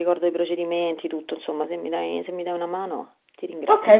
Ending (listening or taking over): taking over